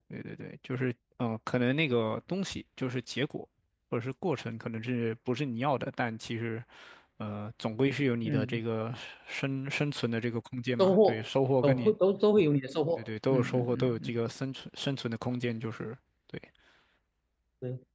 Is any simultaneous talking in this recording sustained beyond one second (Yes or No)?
Yes